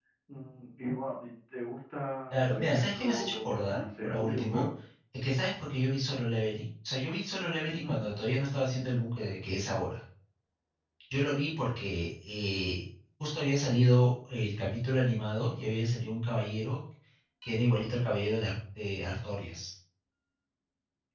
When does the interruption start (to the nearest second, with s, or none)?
2 s